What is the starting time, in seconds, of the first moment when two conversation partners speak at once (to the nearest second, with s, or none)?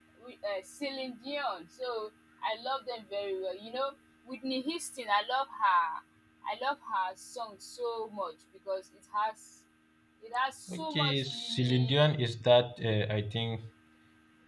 11 s